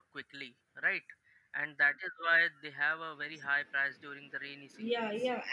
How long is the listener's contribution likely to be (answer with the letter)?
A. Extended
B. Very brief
A